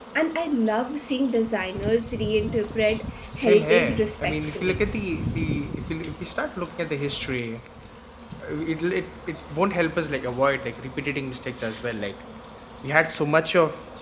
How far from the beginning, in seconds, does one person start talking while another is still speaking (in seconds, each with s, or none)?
3.4 s